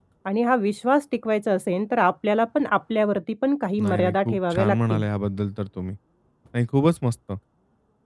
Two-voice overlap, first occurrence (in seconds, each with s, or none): 3.8 s